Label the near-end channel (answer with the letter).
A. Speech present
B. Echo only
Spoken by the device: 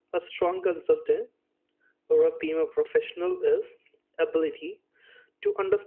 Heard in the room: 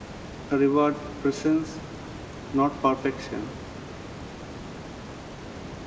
A